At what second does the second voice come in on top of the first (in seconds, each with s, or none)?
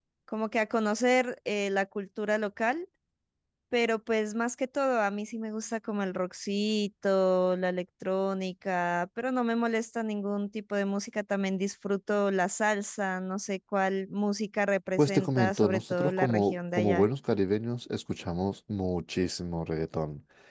15.0 s